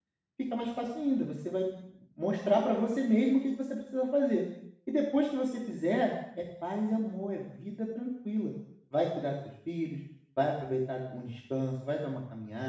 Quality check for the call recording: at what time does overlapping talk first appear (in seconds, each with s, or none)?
none